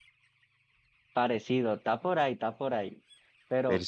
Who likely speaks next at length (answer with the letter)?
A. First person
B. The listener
A